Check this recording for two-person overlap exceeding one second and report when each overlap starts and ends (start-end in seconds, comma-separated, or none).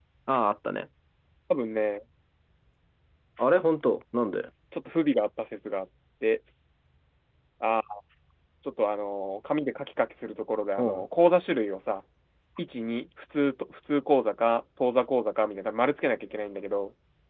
none